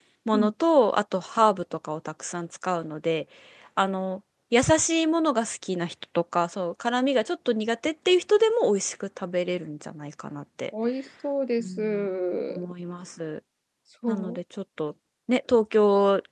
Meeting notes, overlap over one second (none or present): none